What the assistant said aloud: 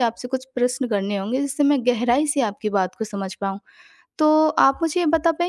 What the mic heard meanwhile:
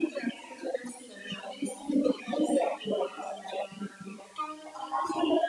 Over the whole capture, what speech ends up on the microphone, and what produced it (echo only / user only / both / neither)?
echo only